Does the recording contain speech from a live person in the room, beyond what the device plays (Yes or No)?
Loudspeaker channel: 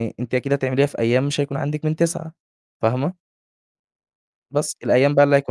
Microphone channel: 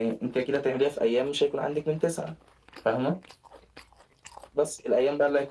No